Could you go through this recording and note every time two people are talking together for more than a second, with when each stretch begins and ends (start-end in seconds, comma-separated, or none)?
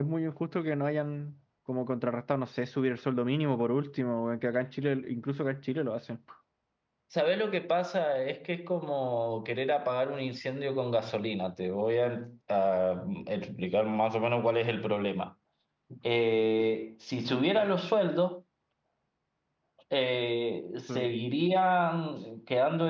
none